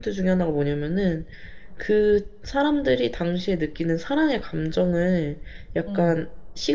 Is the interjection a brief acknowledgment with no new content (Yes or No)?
Yes